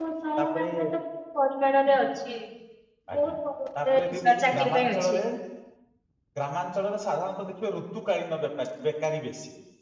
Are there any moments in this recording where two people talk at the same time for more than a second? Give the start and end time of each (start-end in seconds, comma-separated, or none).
3.9-5.2